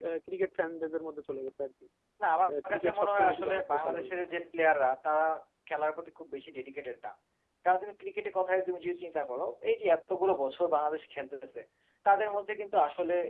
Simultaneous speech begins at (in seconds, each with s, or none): 2.7 s